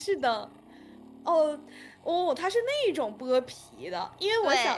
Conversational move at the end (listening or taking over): listening